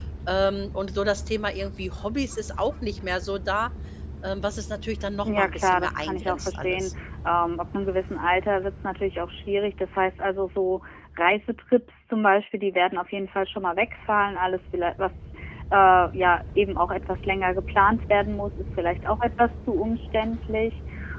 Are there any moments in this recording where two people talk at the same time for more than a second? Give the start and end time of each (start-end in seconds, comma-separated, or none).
5.3-6.9